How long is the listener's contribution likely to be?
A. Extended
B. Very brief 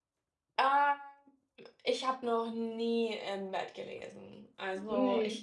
B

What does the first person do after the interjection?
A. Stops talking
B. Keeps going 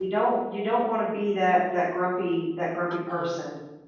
A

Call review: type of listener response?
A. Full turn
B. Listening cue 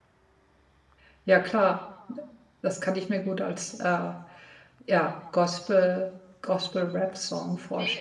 A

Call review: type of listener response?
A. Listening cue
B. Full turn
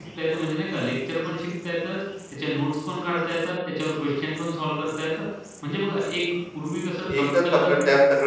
B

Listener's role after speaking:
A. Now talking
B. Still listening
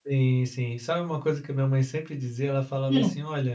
B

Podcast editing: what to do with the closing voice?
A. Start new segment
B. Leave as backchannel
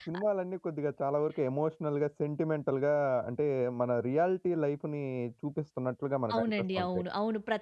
A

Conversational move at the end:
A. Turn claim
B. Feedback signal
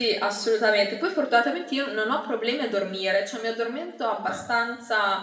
B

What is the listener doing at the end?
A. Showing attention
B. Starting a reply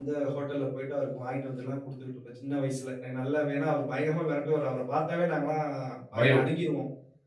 A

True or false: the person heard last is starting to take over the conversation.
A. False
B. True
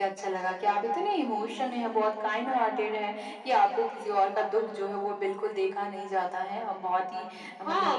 B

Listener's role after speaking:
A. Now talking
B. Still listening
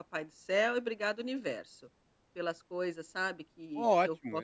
A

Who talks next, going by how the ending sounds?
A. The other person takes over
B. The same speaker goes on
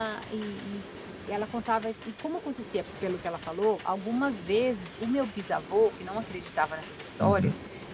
B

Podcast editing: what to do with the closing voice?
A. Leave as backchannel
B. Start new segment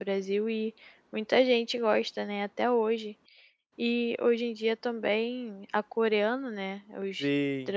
A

